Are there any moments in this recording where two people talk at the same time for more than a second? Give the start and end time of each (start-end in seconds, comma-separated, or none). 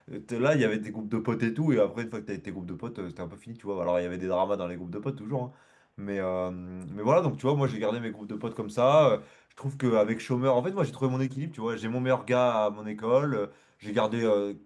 none